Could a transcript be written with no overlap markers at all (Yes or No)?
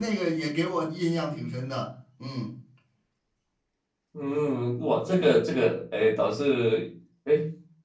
Yes